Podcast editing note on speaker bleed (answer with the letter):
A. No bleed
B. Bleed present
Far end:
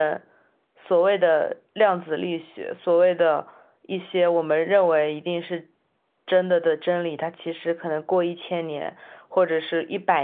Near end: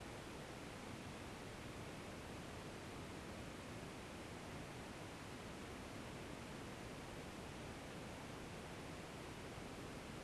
A